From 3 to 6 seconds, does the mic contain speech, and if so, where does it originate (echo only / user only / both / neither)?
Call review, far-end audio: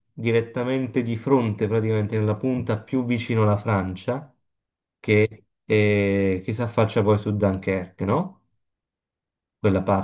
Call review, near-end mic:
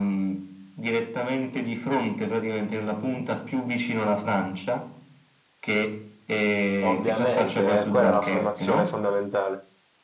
echo only